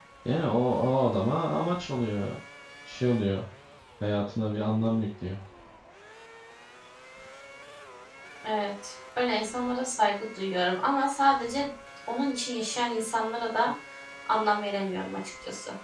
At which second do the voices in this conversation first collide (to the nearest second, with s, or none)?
none